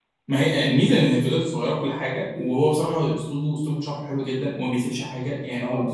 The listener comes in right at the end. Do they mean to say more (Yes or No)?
No